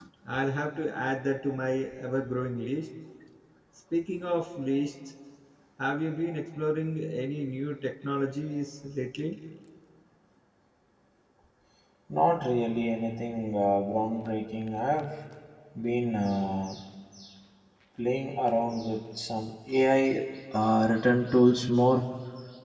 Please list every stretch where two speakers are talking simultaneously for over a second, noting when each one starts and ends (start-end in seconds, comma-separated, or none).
none